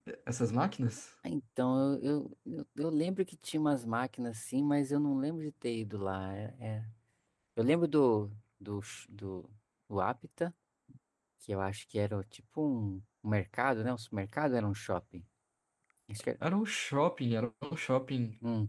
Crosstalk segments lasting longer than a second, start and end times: none

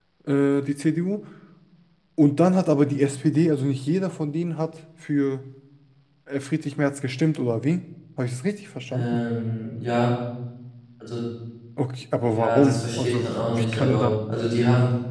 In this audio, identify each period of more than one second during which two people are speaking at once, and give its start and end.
12.2-14.1

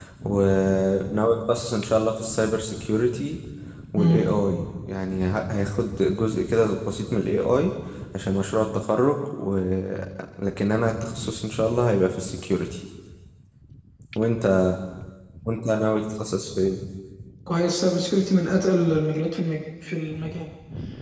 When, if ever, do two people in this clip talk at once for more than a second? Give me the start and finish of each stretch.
none

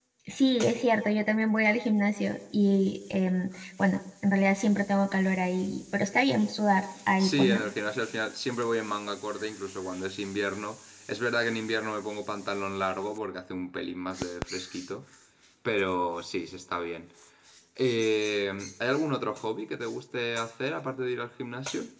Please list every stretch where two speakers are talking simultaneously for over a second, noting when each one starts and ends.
none

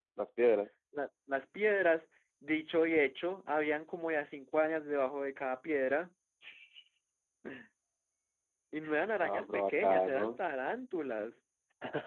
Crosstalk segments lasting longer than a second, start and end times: 9.2-10.4

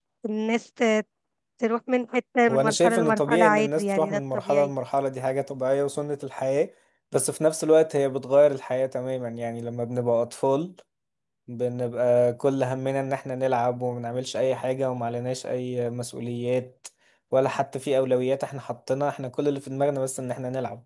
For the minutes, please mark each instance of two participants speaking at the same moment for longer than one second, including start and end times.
2.5-4.7

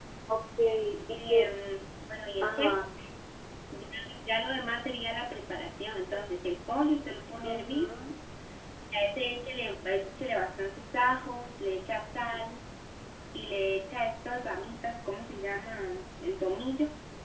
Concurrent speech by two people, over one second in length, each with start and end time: none

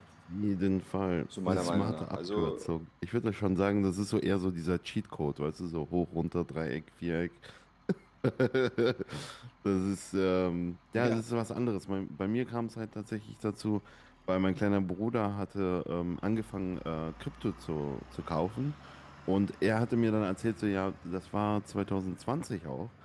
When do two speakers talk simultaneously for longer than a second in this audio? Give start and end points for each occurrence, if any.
1.5-2.8

